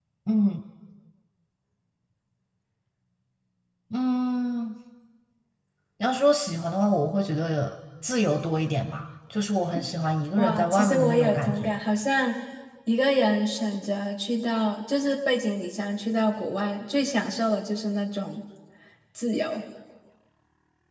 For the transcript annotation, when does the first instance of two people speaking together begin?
10.4 s

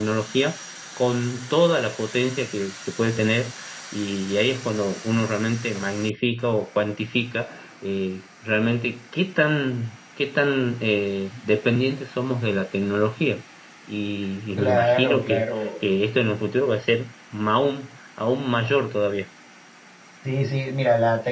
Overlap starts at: 14.6 s

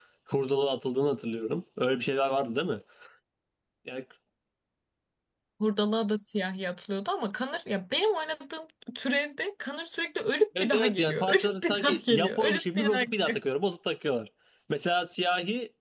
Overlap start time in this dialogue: 10.6 s

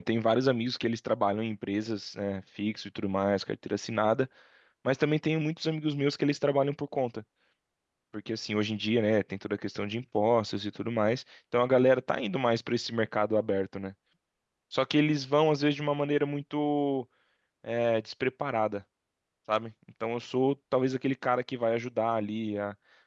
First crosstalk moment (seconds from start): none

